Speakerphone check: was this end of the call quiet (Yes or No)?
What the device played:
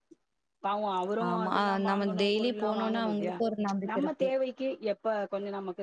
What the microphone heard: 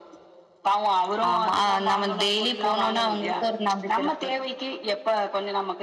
Yes